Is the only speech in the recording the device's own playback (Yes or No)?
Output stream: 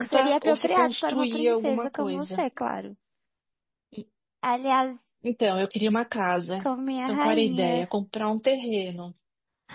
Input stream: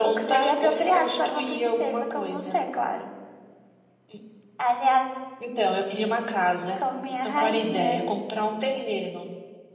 Yes